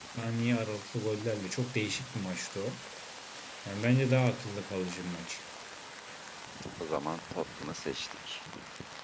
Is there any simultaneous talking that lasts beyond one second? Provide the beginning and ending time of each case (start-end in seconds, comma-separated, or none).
none